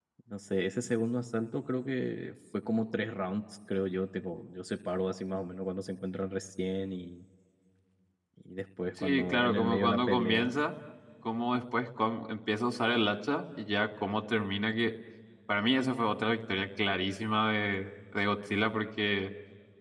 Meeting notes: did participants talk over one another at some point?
Yes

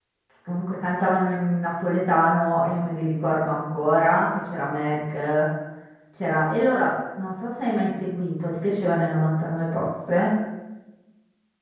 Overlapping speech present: No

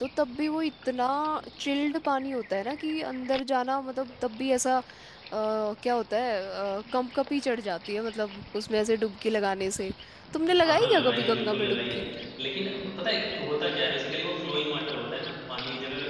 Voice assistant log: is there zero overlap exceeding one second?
No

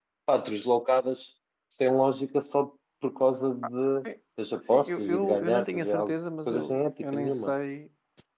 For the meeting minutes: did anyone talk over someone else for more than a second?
Yes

